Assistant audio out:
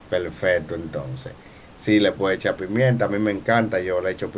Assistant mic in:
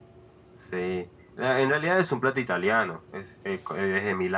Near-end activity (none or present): present